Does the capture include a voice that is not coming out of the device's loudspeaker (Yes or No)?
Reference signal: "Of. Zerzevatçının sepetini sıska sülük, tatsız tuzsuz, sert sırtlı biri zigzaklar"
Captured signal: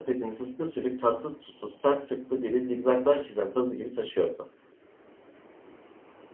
Yes